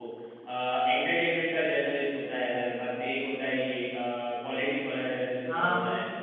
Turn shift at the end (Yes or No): Yes